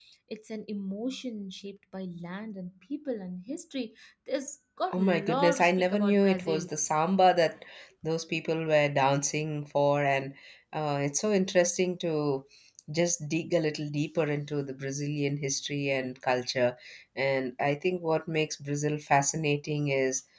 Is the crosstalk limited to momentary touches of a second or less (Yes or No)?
No